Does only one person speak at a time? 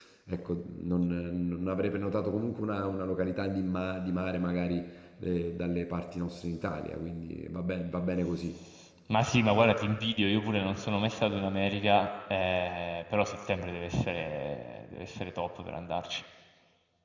Yes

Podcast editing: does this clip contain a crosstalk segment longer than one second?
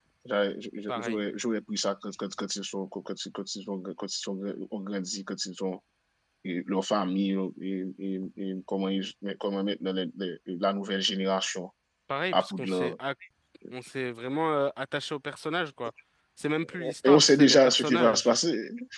Yes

